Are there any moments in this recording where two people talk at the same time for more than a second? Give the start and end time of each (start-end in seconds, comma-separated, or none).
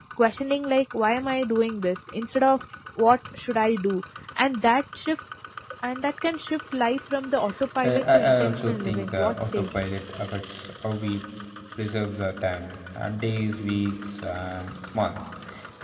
7.8-9.7